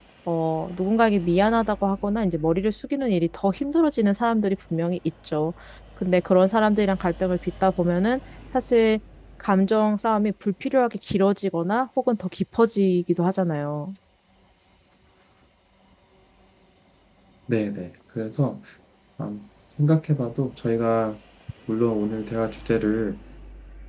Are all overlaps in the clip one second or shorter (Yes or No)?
Yes